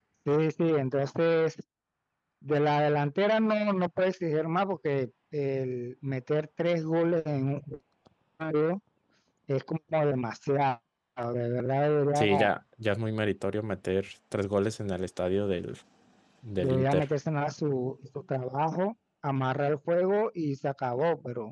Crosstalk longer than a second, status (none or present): none